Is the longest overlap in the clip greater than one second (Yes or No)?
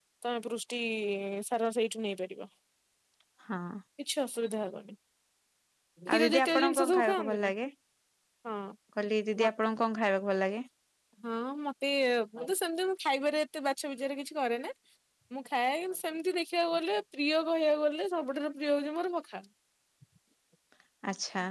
Yes